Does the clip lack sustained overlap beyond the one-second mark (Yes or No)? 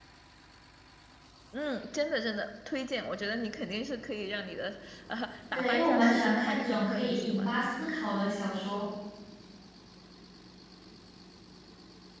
No